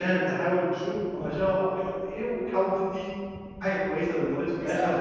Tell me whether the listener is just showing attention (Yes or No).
No